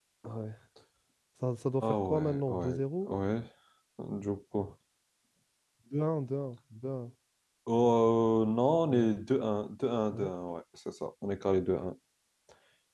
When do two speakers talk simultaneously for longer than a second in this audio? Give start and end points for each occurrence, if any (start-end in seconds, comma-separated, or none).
1.8-3.1